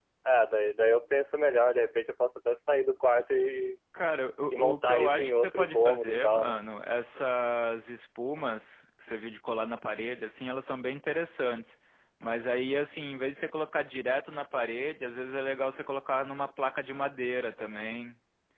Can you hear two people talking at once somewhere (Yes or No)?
Yes